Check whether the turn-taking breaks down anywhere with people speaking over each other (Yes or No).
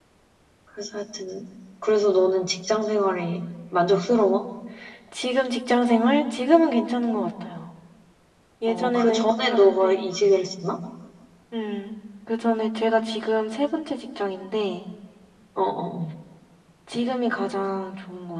Yes